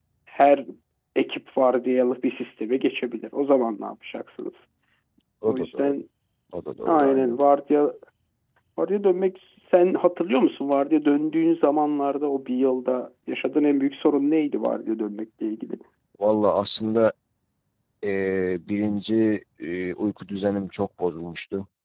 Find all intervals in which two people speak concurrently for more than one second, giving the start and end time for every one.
none

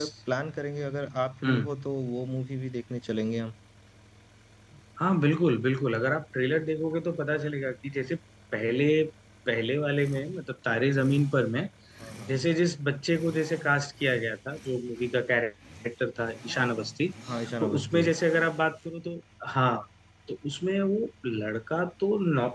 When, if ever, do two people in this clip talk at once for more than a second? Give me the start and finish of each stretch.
none

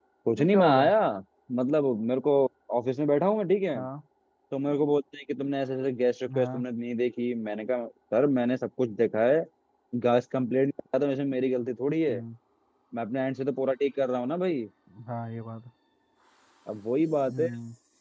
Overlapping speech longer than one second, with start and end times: none

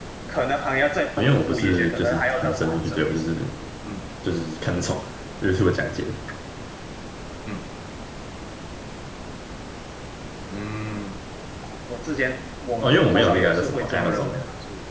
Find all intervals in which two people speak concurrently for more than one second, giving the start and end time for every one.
1.2-3.2, 12.8-14.4

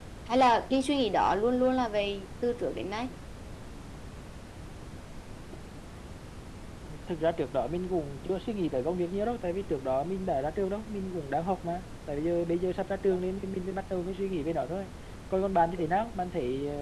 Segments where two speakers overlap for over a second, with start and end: none

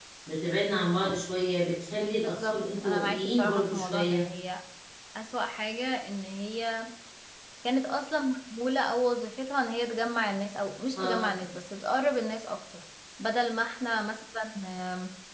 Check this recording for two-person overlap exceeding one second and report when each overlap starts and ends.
2.2-4.2

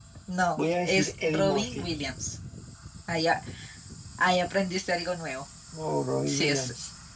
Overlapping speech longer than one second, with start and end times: 0.6-1.9

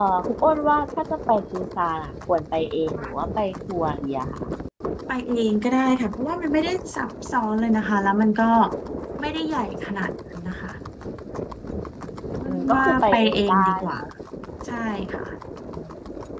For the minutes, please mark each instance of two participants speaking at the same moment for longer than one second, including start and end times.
12.5-14.0

